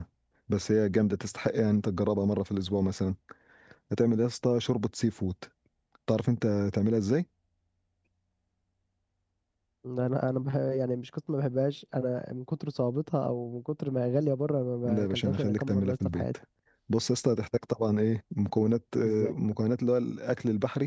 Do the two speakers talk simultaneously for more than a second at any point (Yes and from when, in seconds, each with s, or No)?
Yes, from 14.8 s